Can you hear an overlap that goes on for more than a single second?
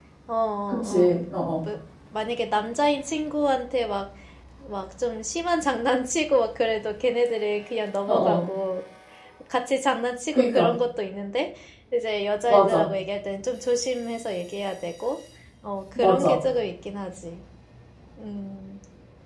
No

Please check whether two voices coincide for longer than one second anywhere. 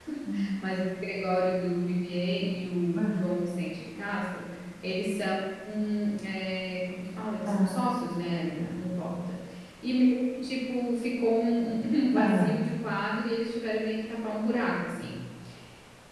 No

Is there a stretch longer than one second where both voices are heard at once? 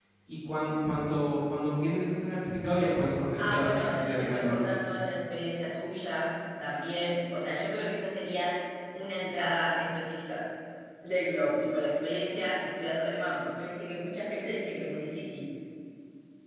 Yes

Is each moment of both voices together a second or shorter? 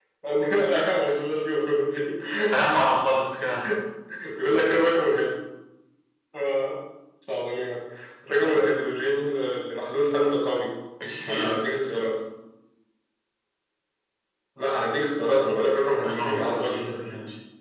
No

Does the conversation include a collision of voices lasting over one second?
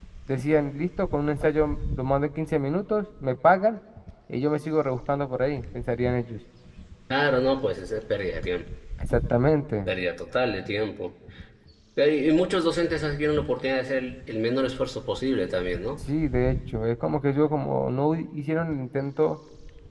No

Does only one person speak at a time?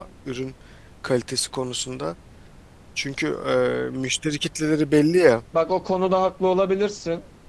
Yes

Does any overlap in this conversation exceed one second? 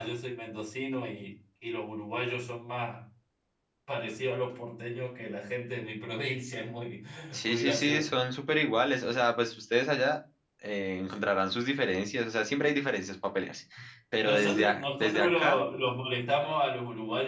Yes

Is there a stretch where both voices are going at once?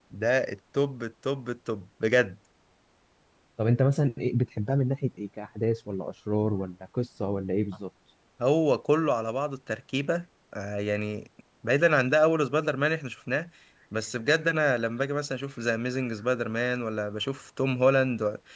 No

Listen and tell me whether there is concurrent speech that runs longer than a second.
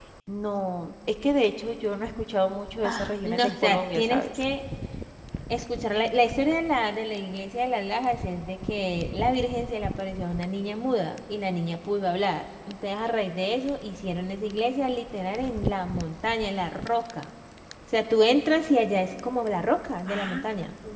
Yes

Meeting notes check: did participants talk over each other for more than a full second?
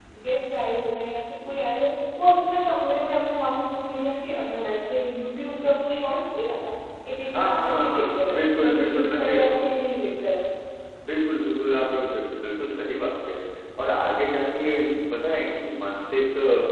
Yes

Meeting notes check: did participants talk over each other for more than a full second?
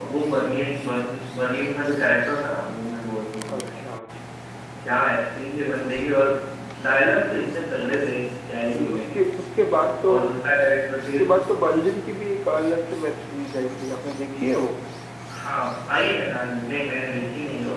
No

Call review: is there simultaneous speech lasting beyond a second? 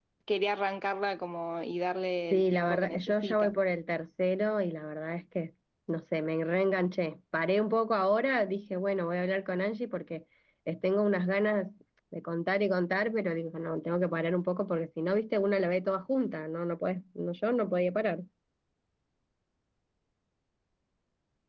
Yes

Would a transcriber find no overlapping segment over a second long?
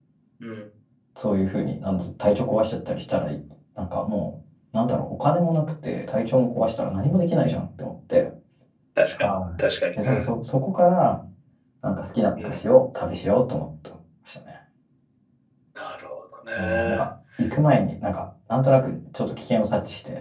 Yes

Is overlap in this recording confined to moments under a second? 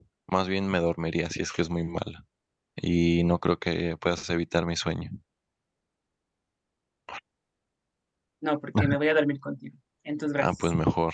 Yes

